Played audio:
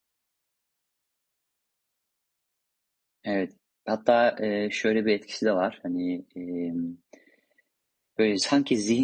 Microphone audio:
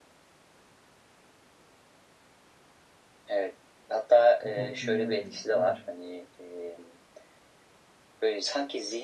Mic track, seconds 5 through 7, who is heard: both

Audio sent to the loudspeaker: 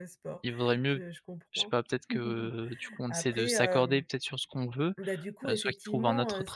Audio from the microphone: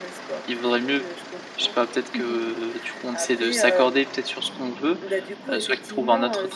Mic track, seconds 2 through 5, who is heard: echo only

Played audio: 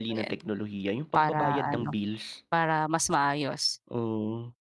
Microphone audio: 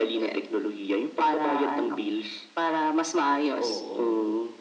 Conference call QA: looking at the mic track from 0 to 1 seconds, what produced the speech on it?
echo only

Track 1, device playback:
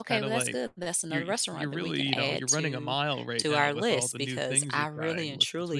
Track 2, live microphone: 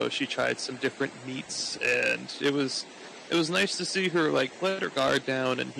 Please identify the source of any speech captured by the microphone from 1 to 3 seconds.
user only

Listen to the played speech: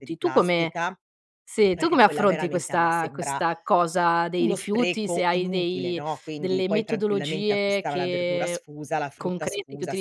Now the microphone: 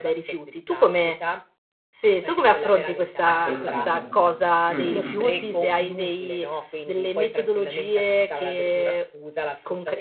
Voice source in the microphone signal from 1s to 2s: echo only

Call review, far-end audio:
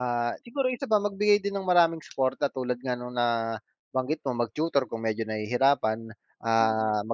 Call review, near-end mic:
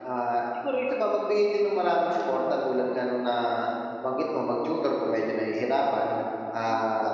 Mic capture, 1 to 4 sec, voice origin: echo only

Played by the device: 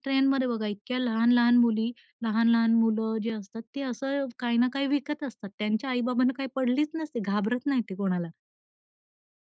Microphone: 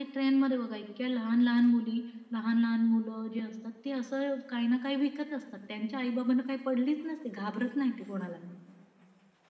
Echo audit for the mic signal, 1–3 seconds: echo only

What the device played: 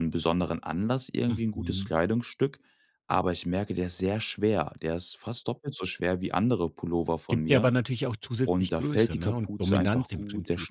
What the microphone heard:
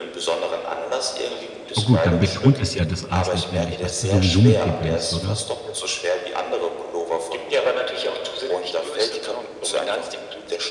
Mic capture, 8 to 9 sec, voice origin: echo only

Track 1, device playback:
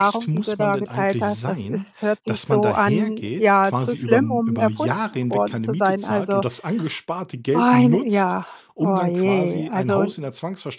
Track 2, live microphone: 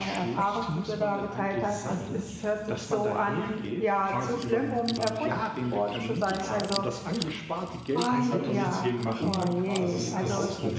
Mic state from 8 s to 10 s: both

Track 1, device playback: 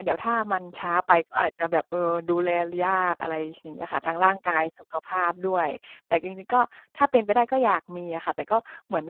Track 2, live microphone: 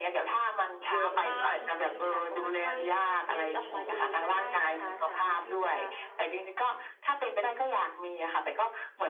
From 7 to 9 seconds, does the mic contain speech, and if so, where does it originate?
echo only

